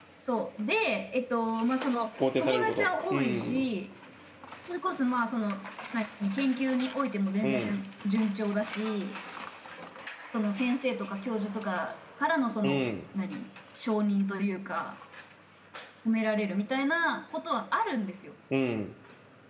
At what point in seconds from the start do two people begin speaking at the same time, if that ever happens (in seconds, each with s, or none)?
2.4 s